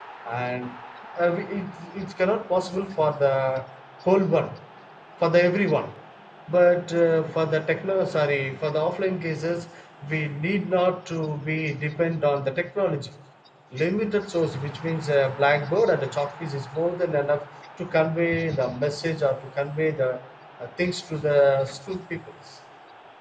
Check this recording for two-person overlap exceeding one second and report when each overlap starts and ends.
none

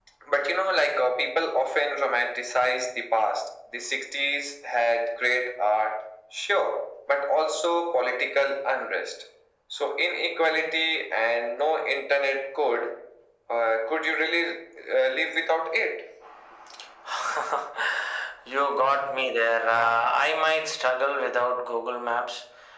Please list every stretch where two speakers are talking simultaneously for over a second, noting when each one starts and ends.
none

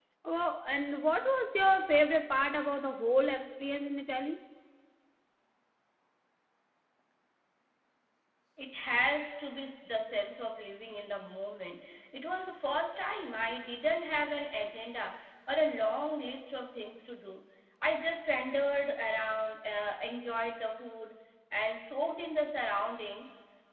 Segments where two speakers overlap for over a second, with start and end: none

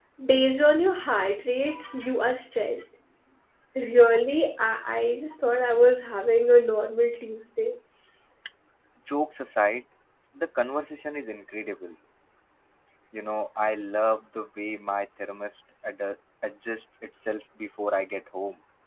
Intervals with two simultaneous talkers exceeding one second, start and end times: none

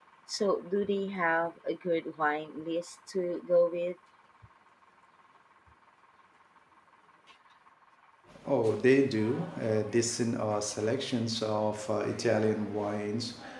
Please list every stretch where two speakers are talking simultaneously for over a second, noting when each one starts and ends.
none

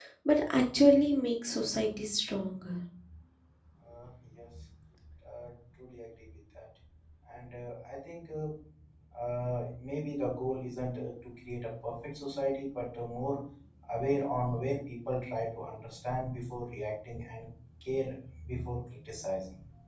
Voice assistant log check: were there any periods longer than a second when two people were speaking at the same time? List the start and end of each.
none

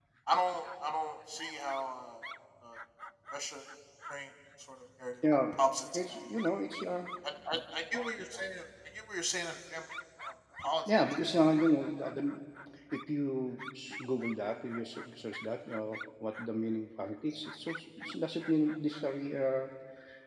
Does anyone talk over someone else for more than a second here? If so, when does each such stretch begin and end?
none

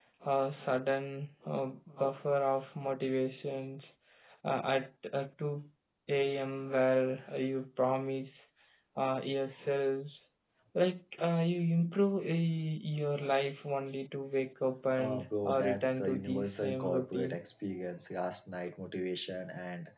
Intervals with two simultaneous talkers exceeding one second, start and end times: 15.0-17.4

